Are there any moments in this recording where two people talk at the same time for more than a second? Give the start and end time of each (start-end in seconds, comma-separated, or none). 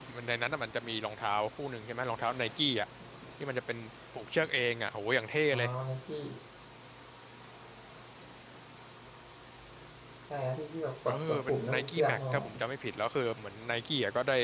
11.1-12.3